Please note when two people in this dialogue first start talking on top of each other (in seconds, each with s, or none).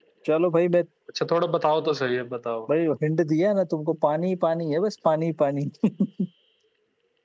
none